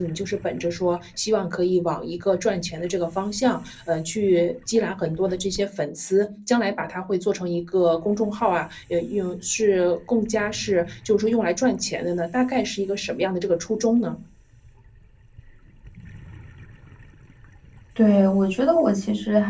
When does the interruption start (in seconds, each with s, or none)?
none